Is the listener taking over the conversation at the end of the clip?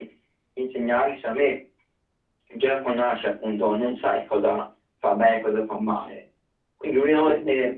No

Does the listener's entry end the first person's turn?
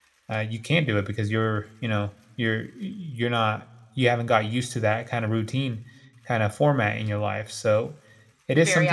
Yes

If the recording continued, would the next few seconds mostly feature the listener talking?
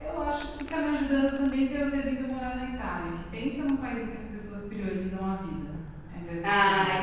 Yes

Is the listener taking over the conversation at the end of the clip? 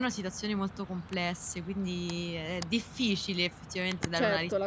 Yes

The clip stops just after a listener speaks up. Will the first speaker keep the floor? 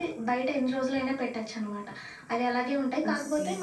Yes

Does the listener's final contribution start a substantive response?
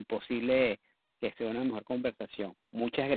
Yes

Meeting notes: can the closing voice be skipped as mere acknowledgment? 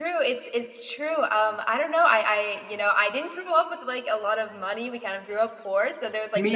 Yes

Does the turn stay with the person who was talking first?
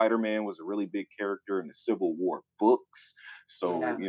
Yes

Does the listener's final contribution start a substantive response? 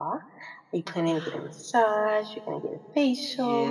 Yes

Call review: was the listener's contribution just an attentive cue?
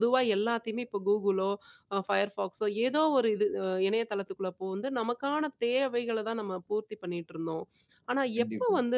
Yes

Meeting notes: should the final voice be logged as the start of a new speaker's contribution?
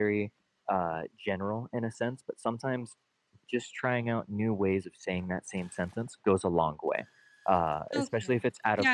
Yes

